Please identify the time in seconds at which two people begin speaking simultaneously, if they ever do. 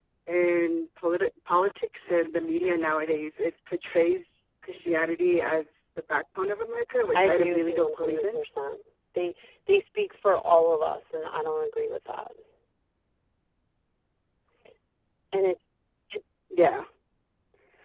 7.2 s

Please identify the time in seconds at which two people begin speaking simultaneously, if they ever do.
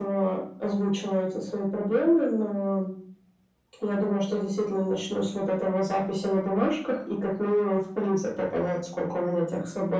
none

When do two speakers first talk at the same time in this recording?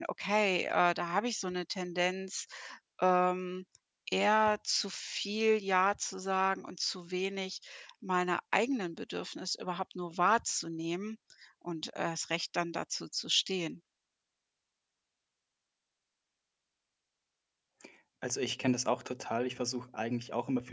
none

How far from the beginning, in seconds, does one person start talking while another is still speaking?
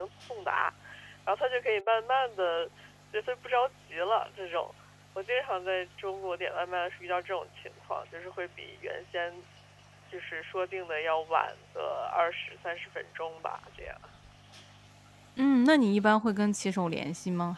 none

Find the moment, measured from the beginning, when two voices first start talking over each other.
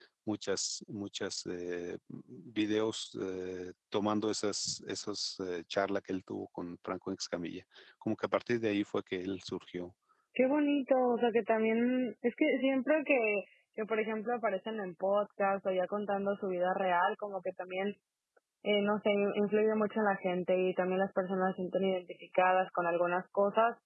none

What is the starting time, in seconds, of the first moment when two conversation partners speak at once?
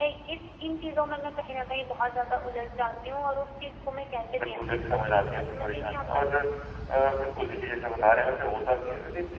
4.3 s

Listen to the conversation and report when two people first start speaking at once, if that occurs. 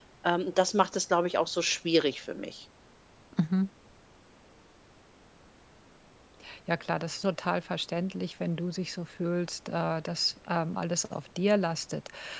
none

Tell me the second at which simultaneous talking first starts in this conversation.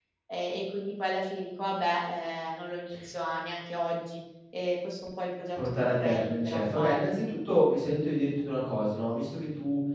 5.6 s

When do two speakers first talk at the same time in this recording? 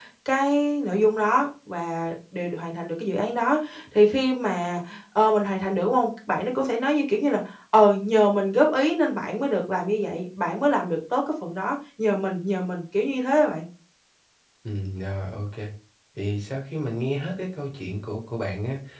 none

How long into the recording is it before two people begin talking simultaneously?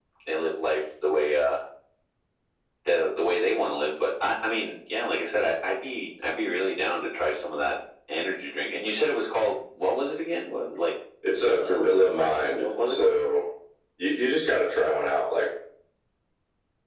11.4 s

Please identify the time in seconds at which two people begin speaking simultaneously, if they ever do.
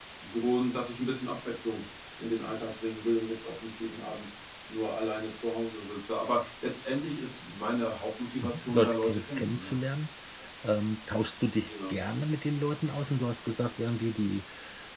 8.4 s

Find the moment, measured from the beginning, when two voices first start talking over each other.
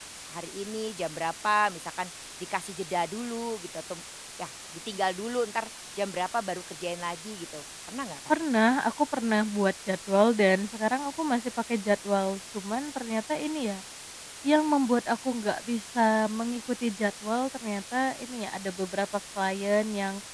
none

